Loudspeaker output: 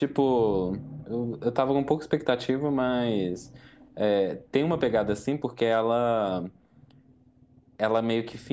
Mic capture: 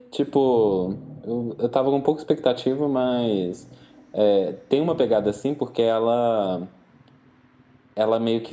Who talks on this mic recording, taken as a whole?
echo only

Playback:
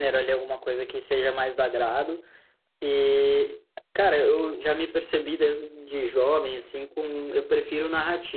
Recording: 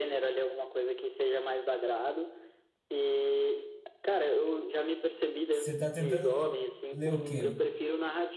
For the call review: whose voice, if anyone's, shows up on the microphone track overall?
both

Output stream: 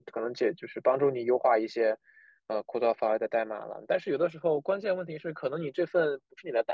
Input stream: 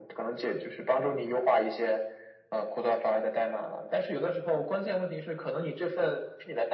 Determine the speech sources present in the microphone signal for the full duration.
echo only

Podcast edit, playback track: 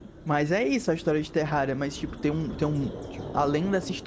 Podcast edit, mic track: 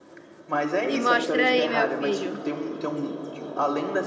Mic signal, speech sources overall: both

